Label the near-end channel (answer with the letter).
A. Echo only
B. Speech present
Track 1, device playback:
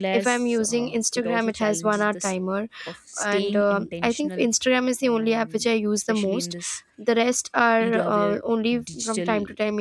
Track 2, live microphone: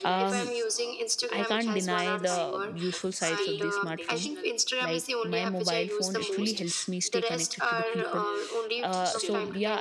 B